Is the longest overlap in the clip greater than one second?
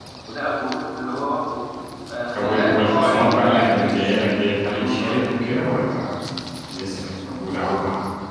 Yes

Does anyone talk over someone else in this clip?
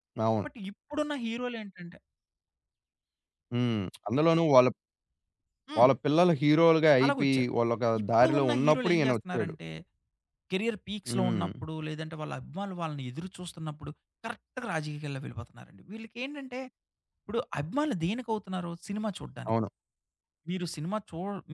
Yes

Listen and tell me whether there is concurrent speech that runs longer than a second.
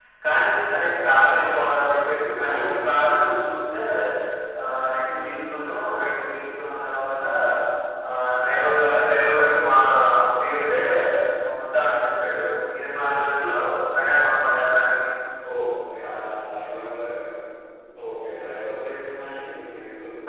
No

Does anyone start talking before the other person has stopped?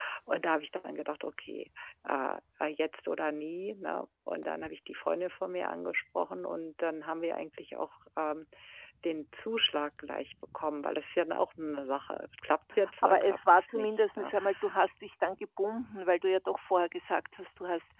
Yes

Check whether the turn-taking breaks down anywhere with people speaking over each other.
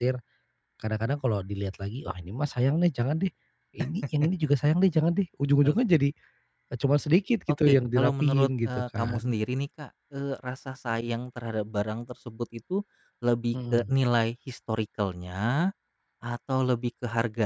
Yes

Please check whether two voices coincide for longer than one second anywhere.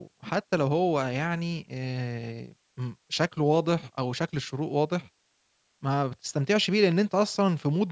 No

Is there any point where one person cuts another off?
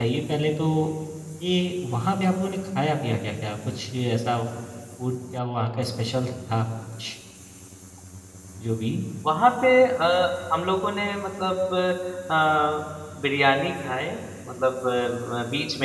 No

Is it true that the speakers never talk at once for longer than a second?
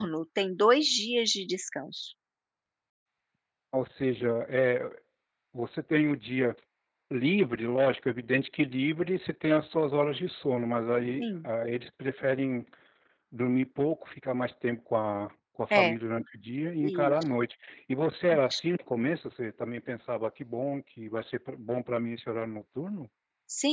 Yes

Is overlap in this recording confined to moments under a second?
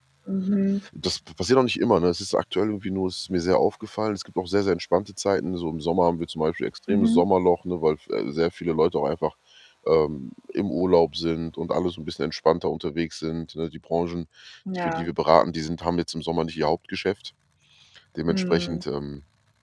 Yes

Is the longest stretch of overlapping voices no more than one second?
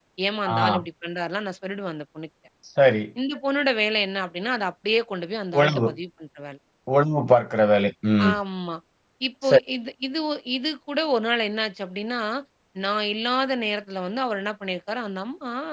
Yes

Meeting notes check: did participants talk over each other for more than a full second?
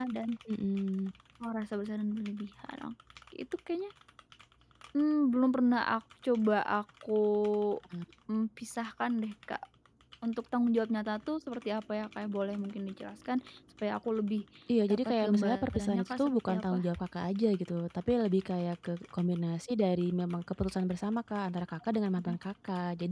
Yes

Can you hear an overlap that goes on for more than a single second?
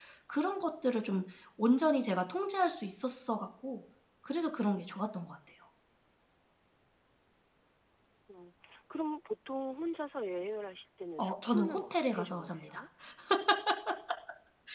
Yes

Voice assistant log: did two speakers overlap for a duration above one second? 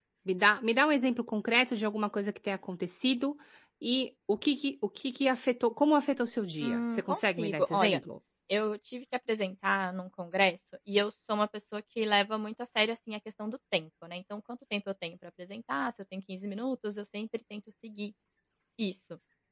Yes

